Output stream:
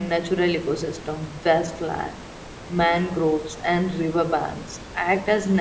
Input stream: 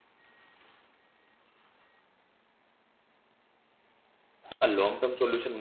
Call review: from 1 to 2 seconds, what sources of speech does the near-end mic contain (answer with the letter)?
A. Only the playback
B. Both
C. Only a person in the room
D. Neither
D